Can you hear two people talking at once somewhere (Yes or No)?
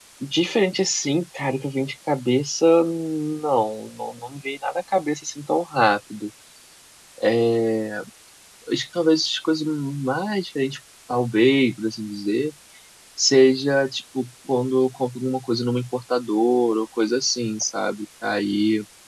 No